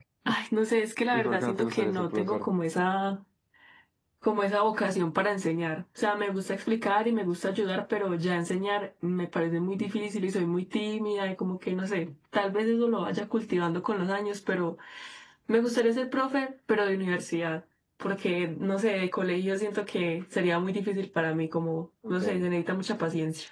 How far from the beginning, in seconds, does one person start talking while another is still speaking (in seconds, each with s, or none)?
1.1 s